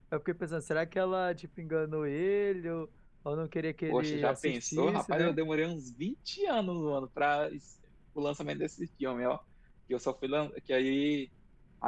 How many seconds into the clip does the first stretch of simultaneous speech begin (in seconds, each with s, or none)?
3.9 s